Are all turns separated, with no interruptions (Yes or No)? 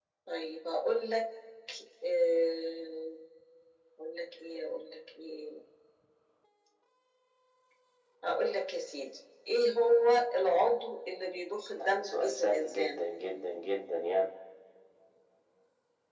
No